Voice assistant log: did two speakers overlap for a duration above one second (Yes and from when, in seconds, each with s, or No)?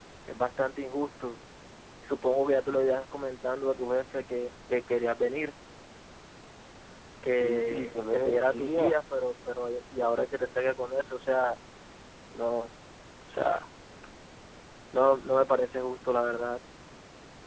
Yes, from 7.4 s